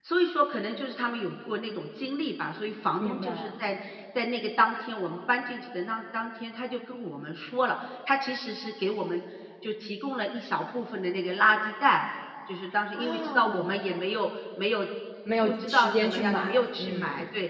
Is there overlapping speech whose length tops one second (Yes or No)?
Yes